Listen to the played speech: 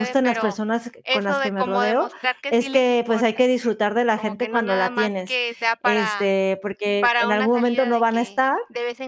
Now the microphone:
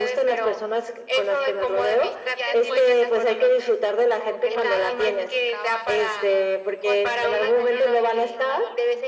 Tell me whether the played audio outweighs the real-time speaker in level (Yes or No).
Yes